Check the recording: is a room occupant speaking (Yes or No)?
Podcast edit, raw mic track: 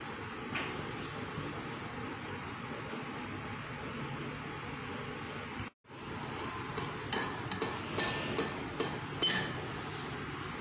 No